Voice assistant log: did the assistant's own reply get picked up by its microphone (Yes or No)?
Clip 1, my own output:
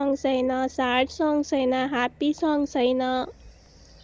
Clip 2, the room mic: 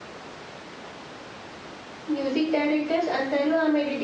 No